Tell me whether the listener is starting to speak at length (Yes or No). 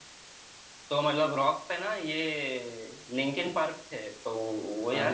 Yes